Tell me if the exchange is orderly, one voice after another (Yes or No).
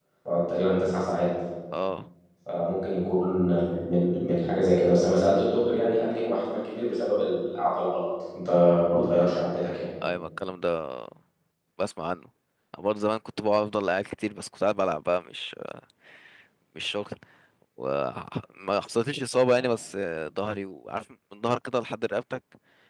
Yes